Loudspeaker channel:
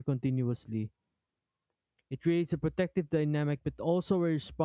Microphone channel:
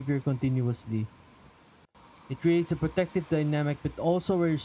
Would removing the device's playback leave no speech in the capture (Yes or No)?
Yes